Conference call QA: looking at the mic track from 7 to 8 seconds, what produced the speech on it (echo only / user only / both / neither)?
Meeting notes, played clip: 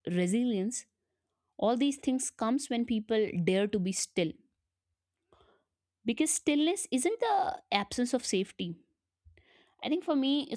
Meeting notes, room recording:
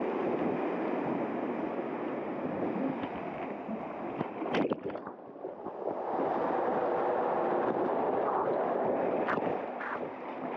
neither